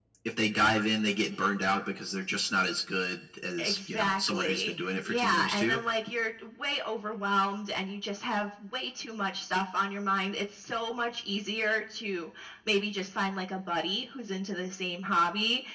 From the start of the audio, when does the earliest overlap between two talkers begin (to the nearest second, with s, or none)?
4 s